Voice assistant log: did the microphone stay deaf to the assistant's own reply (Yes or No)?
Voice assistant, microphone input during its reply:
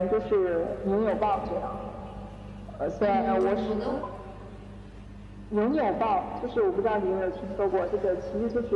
No